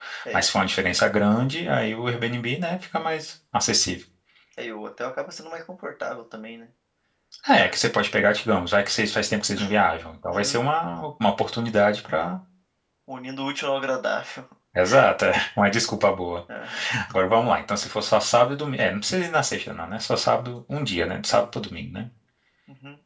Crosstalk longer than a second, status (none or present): none